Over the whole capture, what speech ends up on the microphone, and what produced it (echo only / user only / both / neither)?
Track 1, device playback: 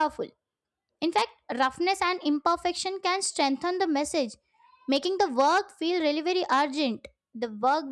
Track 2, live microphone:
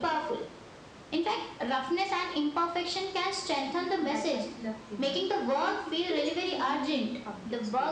both